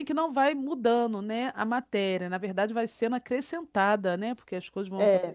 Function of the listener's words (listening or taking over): taking over